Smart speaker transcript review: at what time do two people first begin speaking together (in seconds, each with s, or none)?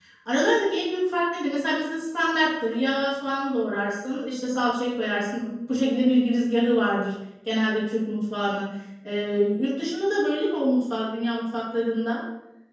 none